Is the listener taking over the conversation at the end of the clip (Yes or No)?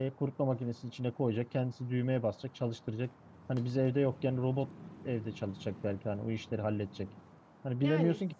No